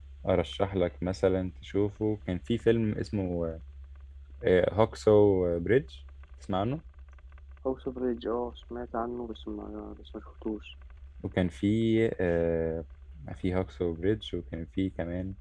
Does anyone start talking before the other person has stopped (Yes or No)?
No